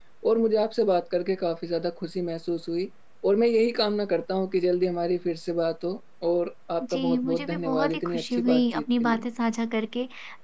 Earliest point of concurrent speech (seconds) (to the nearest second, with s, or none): 7 s